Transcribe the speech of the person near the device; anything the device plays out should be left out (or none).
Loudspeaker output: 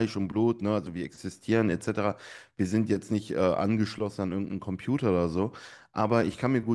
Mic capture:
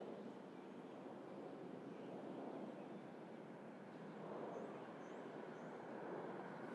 none